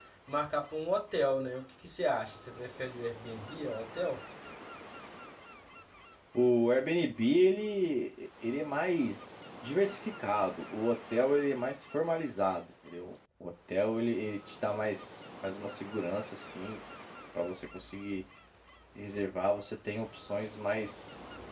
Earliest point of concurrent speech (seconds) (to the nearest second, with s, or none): none